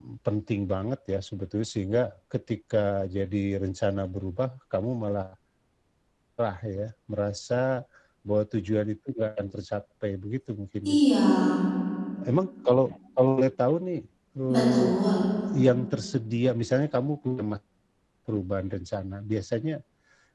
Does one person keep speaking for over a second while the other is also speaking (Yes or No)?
No